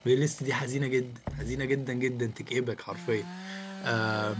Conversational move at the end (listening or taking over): listening